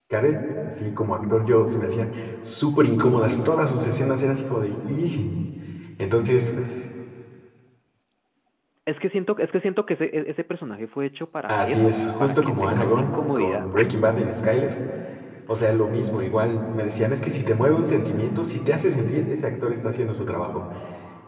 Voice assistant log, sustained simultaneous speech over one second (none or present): present